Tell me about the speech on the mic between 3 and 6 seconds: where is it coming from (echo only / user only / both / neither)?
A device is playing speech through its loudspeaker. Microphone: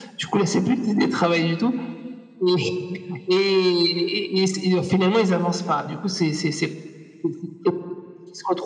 echo only